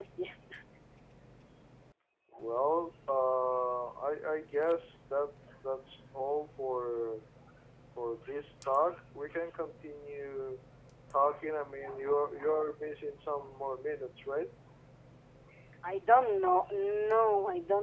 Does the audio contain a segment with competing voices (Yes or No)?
No